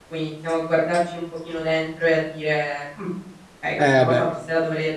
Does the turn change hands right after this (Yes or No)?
No